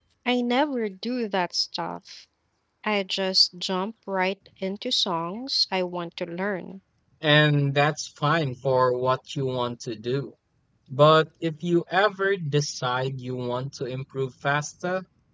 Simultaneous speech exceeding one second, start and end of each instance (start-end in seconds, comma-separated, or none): none